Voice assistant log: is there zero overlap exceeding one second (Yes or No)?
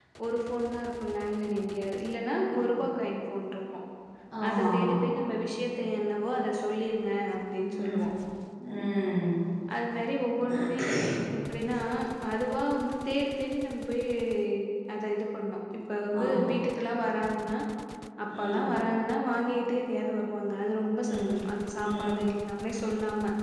Yes